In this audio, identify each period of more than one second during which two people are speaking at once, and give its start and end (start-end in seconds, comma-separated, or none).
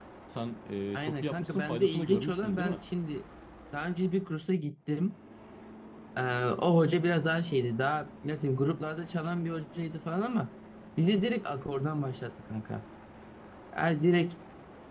0.9-2.8